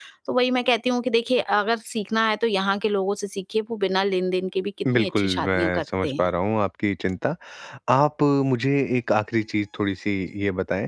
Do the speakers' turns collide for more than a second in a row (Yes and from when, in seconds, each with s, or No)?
Yes, from 4.8 s